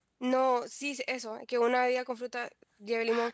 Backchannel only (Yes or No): No